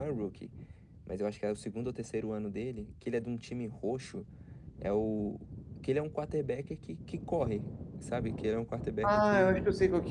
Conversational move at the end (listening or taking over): taking over